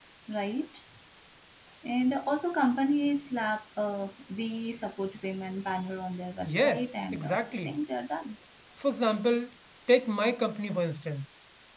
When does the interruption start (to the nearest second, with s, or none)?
6 s